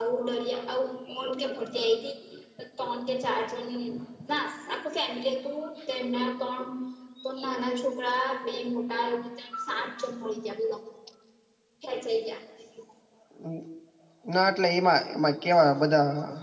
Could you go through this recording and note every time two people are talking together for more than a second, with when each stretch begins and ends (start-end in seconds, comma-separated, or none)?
none